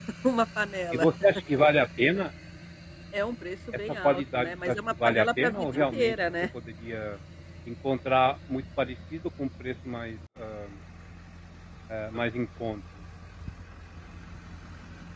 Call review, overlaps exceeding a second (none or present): present